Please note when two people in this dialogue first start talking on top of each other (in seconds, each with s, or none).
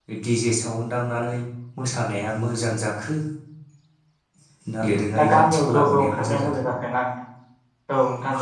5.3 s